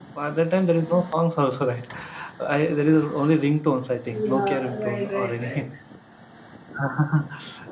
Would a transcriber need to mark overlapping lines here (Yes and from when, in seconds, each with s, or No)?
Yes, from 4.1 s